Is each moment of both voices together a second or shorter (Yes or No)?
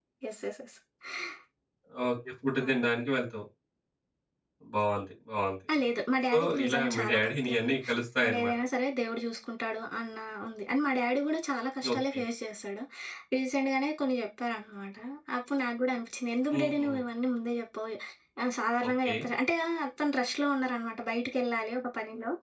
No